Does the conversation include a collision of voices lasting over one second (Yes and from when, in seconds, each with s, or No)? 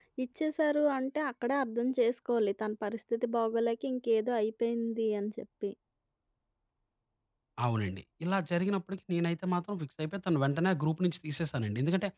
No